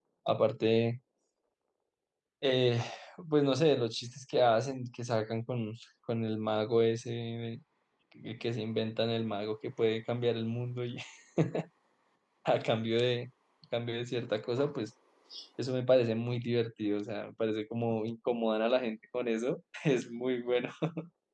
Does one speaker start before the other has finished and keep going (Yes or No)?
No